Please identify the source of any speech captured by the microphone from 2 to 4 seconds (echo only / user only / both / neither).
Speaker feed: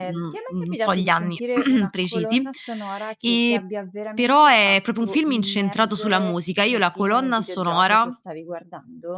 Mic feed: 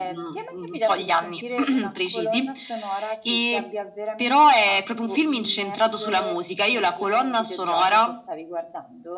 echo only